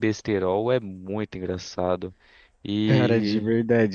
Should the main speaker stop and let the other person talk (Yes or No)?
Yes